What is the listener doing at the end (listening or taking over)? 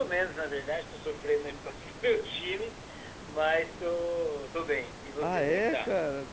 taking over